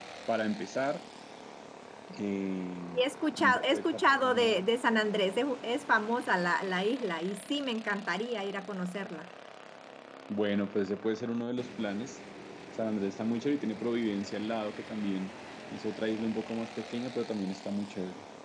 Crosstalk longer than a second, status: present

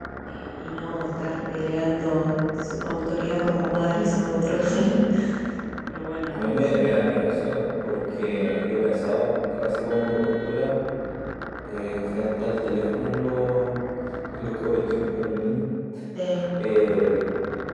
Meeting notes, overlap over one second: none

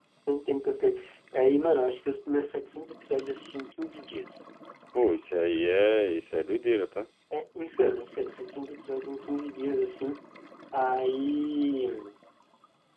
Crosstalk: none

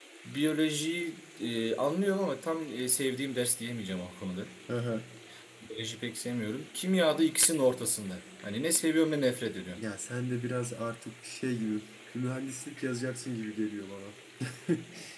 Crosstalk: none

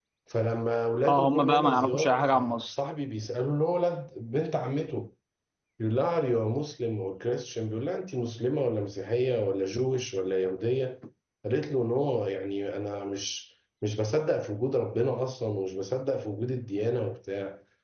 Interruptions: present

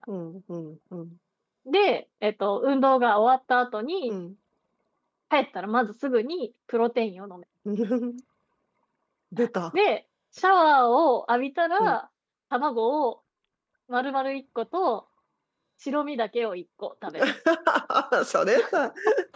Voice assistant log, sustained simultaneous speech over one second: none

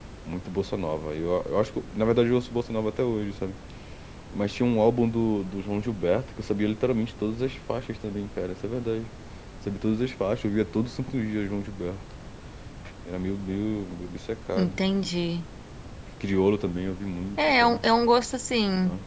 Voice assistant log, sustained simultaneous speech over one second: none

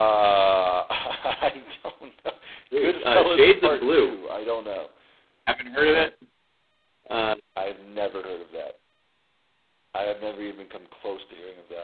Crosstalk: present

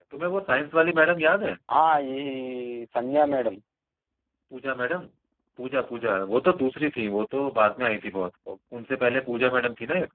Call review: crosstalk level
none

